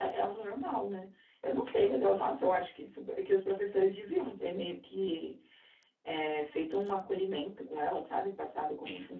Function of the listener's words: taking over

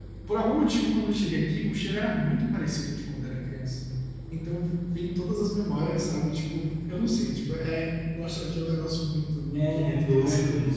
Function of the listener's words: taking over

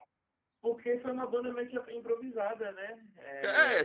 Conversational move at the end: taking over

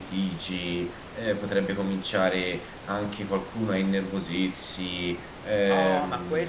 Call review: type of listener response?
taking over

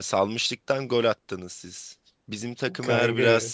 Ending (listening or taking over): listening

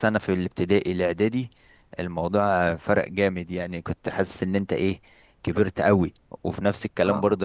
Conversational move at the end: listening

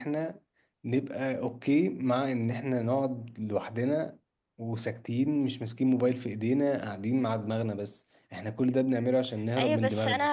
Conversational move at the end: taking over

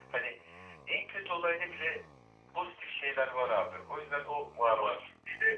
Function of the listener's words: listening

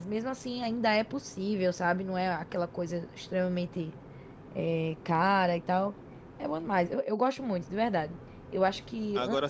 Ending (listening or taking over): listening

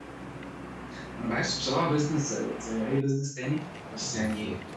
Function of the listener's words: taking over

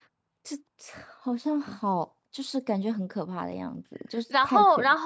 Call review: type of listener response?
taking over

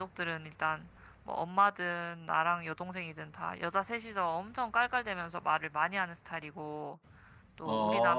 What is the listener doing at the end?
listening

